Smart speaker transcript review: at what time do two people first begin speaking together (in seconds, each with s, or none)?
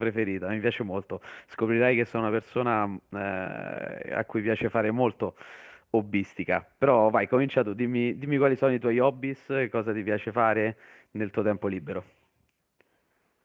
none